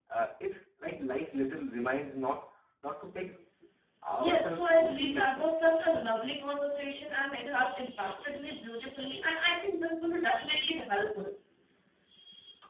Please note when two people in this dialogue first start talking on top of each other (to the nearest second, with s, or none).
4 s